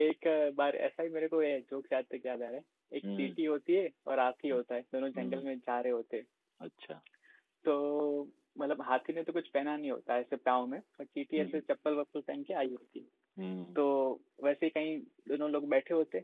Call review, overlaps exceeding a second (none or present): none